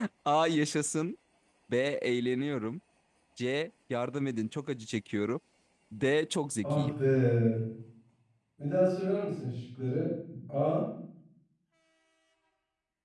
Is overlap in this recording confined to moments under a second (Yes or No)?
Yes